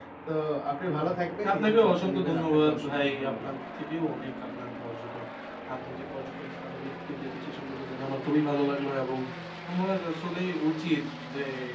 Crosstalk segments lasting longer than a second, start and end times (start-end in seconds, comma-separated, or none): 1.5-3.5